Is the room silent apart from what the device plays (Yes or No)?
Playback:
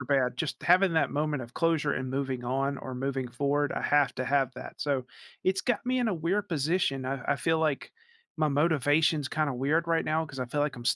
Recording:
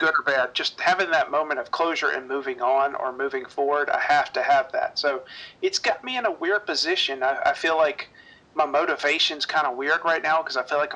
Yes